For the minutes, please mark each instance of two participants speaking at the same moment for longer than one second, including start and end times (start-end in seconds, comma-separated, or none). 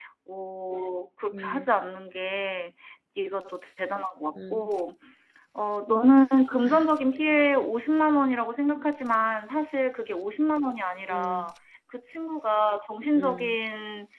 none